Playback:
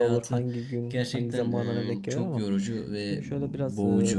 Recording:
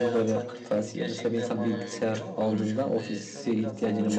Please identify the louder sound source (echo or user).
user